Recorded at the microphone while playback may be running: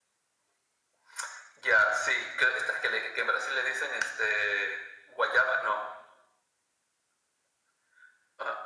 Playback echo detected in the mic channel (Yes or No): Yes